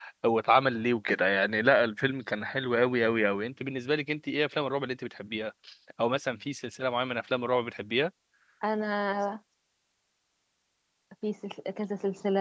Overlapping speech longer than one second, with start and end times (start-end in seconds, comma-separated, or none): none